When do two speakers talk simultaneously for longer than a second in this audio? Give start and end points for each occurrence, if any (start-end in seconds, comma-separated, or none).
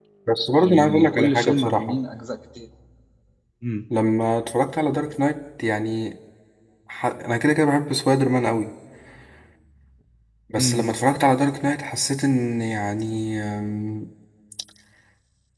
0.6-2.0